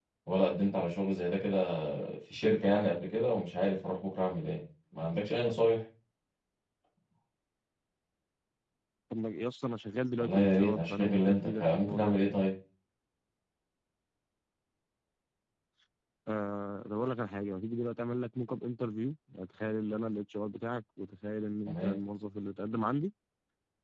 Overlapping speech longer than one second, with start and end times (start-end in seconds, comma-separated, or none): 10.2-12.2